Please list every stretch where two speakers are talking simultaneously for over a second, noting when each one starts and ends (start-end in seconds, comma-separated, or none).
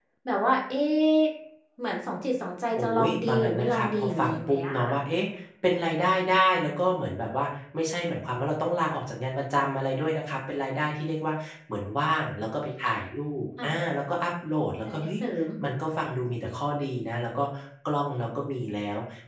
2.8-4.9